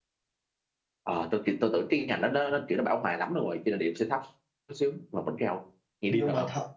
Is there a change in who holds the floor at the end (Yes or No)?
Yes